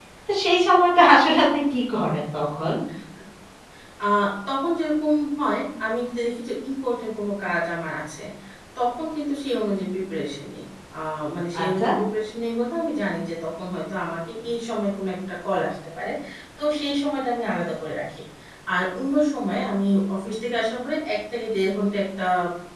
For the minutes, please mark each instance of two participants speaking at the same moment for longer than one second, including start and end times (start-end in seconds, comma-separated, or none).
none